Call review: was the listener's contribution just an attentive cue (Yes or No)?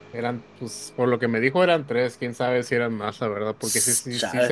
Yes